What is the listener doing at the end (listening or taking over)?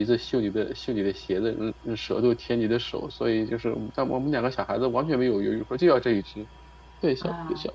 listening